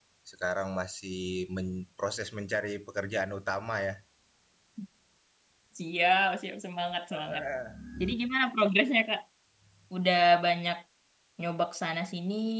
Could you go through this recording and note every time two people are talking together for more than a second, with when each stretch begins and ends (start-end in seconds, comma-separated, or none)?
none